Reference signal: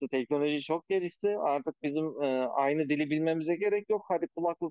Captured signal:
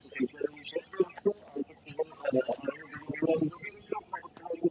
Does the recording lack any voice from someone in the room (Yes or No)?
Yes